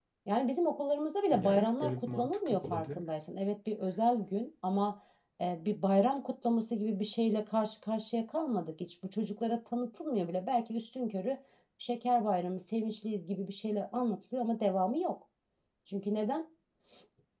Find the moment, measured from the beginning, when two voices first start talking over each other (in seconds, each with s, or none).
1.3 s